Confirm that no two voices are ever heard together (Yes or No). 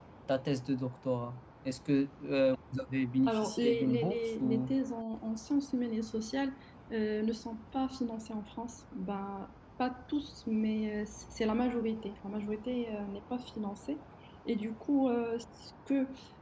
No